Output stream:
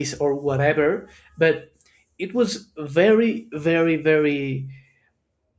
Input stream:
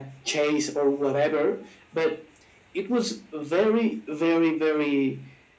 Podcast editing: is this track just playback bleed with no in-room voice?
Yes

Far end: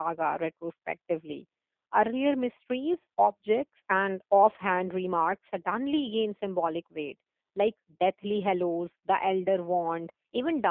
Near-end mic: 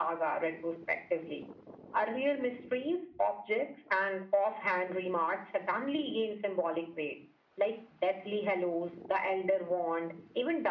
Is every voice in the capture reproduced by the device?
Yes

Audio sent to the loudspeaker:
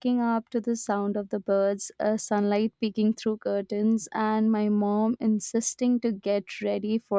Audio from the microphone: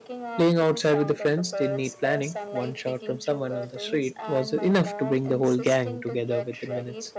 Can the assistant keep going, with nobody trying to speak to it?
No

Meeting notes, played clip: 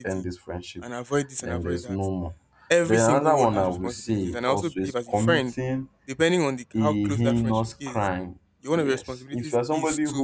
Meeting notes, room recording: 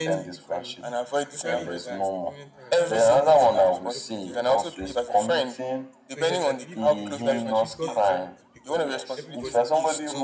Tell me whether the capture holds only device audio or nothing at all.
No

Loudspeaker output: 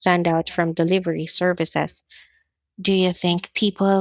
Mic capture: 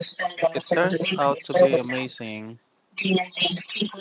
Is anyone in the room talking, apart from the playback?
Yes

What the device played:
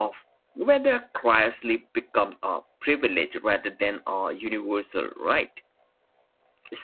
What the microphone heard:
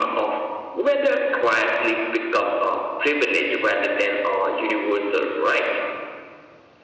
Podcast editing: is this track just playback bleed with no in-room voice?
Yes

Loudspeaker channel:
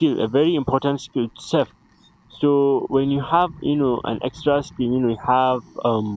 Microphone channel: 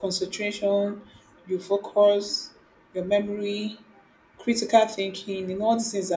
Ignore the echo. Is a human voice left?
Yes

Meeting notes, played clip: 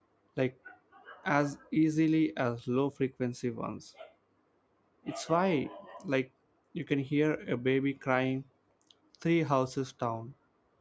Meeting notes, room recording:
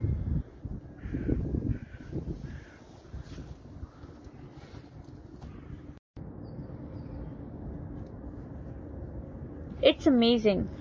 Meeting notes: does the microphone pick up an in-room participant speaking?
Yes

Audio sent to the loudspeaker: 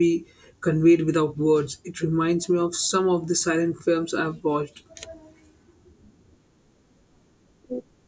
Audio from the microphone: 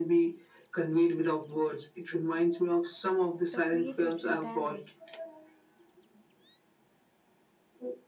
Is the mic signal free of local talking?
No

